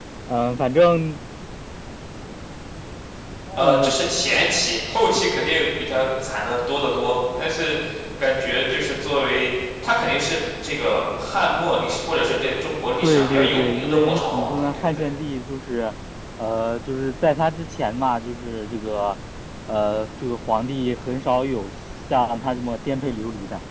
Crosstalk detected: Yes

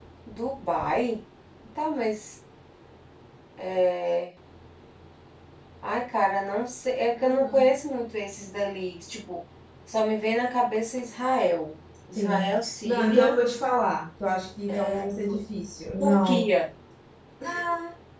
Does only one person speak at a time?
No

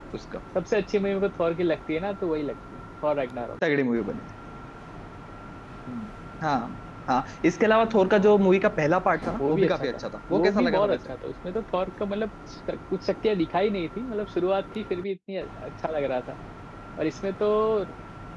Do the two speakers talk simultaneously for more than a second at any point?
Yes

